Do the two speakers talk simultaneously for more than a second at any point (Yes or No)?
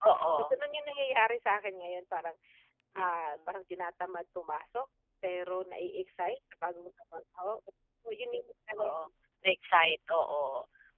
No